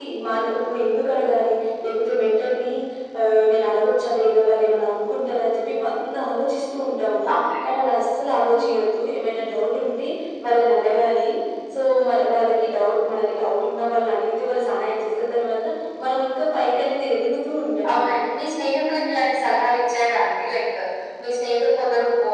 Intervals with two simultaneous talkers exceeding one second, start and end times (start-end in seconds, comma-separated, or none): none